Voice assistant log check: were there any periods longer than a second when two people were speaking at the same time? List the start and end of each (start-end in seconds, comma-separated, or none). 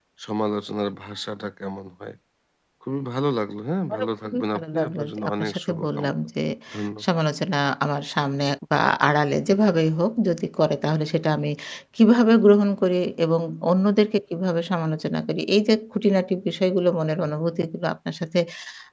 3.9-6.1